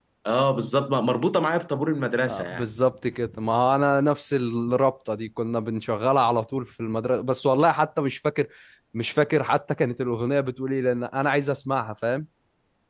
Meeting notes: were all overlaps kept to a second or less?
Yes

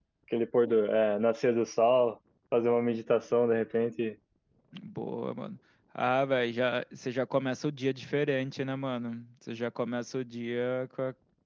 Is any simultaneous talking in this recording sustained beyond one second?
No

